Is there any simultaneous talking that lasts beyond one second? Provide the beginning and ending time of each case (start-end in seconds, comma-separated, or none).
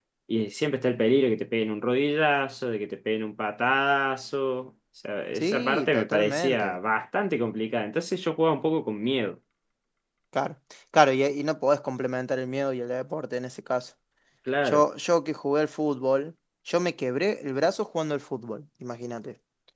5.3-6.8